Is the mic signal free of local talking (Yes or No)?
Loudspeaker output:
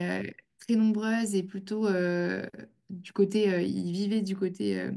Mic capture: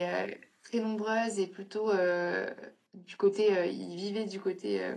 Yes